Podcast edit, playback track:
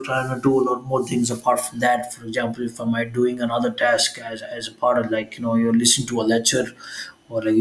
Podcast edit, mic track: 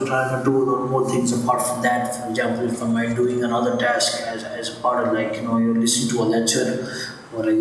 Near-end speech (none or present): none